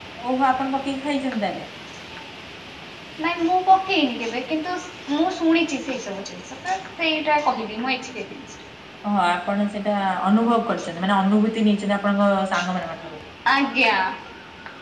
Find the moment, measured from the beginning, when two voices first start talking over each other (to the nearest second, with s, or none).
none